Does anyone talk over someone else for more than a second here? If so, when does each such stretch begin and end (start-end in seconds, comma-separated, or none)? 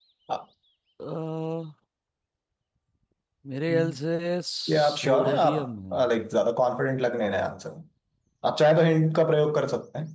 4.7-6.0